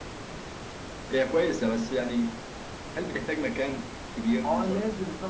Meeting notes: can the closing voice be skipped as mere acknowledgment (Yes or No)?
No